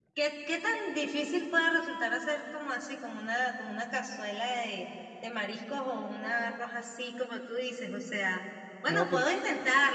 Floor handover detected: No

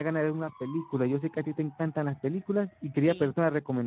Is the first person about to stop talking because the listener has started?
No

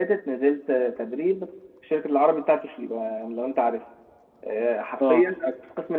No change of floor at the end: Yes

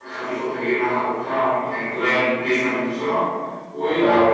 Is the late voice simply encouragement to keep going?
Yes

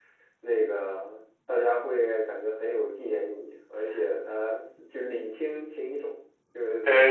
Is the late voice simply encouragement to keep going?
No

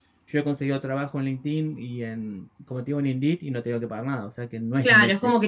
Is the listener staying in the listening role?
No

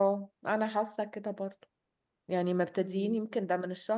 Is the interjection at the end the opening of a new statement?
No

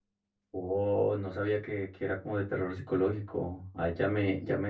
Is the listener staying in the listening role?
Yes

